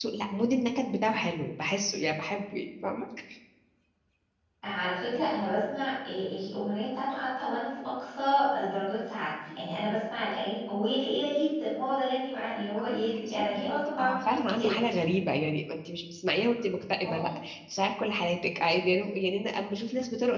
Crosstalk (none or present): present